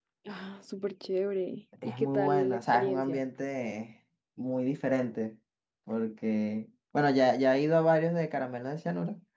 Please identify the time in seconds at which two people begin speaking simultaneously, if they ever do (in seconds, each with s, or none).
1.8 s